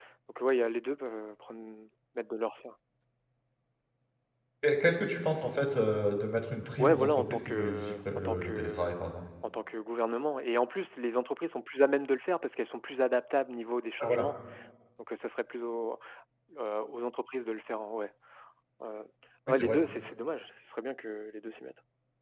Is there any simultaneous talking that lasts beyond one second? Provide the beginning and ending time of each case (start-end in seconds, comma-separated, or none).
6.8-8.9